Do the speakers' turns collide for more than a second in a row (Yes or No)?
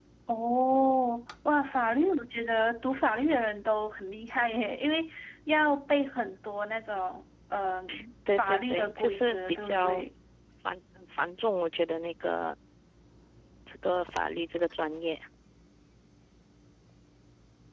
Yes